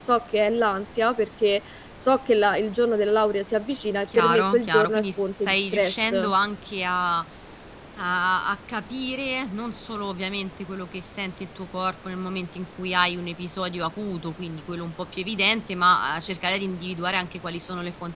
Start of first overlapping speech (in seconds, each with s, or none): 4.1 s